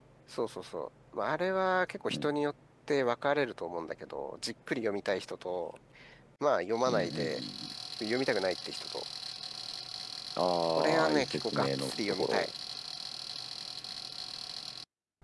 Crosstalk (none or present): present